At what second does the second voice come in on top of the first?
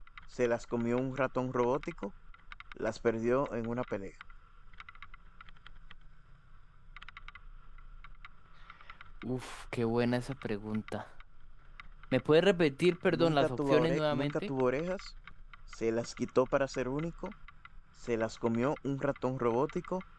13.1 s

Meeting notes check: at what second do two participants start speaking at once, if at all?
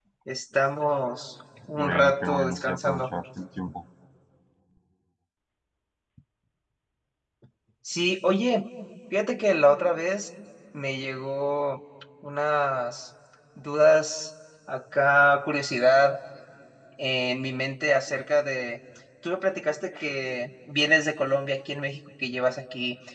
1.8 s

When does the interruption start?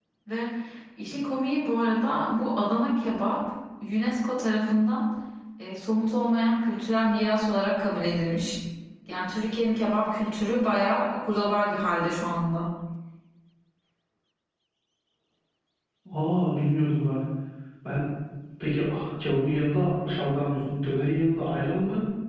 none

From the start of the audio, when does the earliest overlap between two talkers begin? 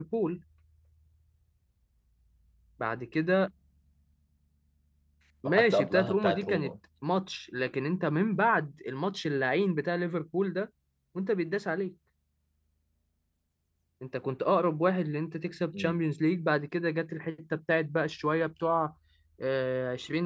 5.5 s

